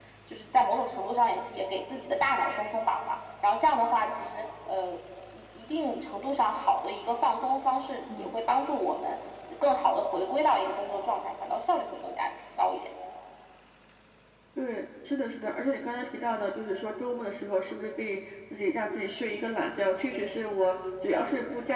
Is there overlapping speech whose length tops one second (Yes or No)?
No